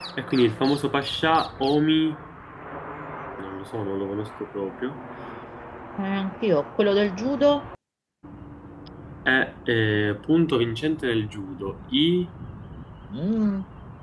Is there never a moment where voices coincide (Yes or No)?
Yes